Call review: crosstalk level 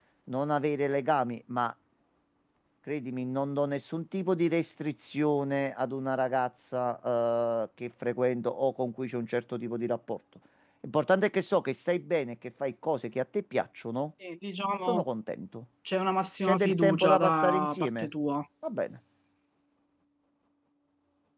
present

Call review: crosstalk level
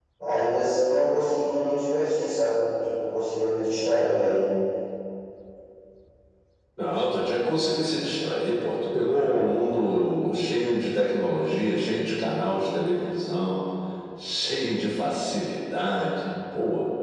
none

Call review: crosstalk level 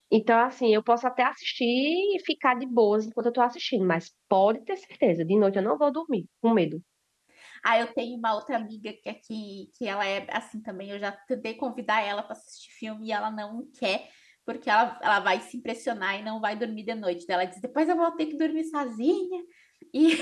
none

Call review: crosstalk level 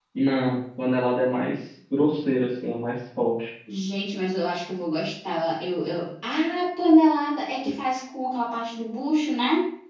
none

